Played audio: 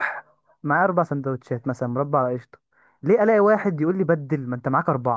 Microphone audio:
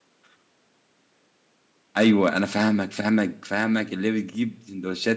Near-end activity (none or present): present